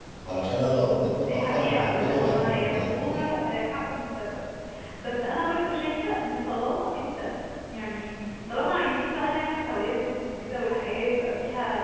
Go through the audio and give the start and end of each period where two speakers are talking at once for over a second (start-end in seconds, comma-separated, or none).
1.2-3.2